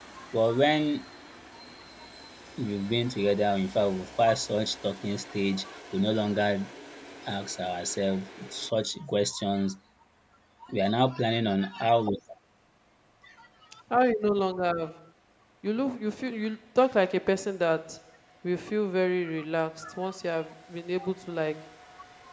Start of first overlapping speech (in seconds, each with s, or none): none